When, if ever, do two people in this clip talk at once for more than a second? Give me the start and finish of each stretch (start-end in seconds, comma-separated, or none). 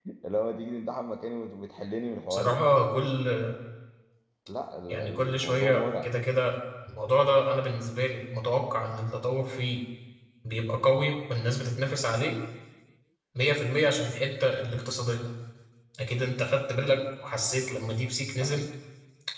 4.9-6.1